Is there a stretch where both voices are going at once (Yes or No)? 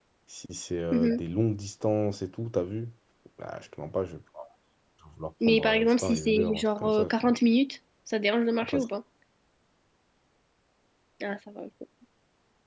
Yes